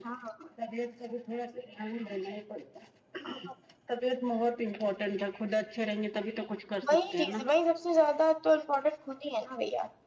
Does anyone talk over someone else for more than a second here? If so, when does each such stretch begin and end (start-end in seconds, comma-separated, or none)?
none